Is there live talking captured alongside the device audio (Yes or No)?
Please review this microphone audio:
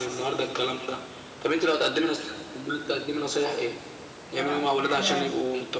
Yes